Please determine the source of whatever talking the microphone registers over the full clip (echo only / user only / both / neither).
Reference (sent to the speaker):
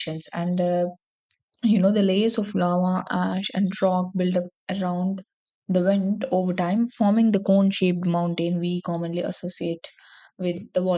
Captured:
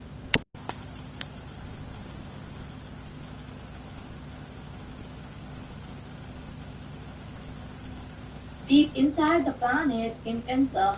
user only